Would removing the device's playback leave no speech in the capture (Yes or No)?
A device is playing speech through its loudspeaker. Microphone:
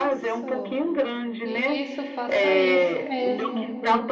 No